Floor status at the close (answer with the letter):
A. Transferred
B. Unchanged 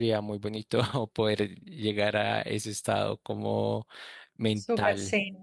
A